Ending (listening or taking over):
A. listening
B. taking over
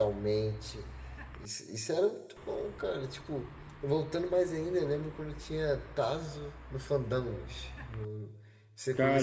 B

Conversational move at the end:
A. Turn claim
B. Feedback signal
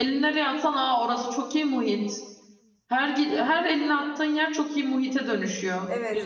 A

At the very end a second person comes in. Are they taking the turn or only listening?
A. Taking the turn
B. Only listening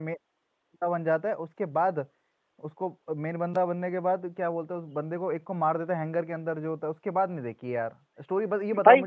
B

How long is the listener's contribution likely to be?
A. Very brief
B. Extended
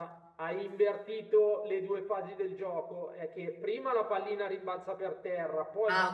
A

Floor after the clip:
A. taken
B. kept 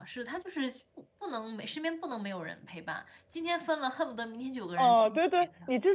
A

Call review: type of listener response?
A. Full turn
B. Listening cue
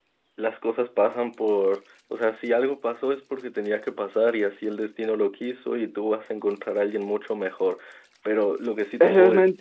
A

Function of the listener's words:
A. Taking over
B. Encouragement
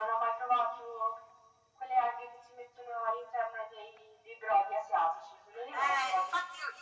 A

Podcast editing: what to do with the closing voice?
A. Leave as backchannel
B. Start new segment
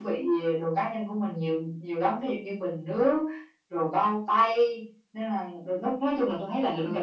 B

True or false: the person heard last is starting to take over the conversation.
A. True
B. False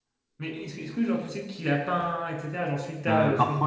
A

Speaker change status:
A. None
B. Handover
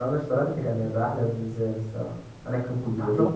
A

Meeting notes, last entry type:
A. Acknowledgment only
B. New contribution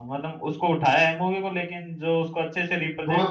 B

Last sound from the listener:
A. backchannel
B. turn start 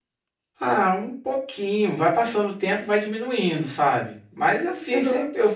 A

